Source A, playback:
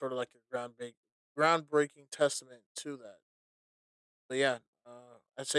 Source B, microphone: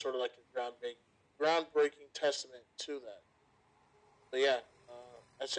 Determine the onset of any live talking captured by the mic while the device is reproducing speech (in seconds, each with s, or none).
none